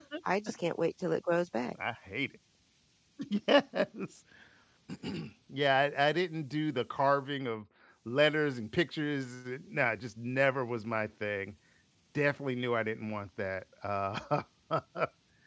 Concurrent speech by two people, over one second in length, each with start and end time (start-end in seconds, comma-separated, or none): none